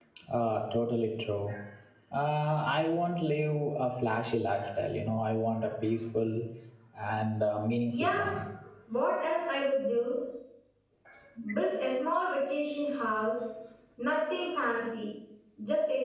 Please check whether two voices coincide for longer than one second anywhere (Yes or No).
No